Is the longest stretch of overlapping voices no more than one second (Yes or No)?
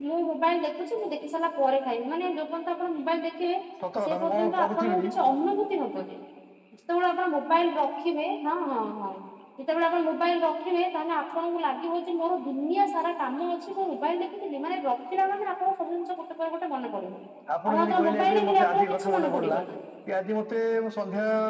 No